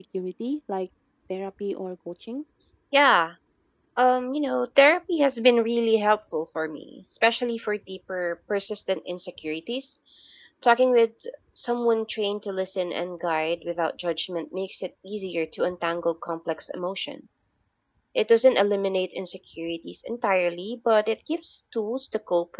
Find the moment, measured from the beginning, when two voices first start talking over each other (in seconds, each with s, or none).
none